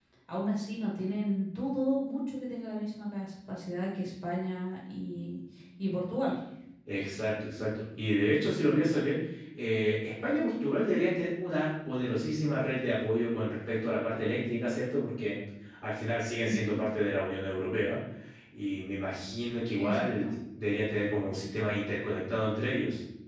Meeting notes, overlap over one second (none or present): none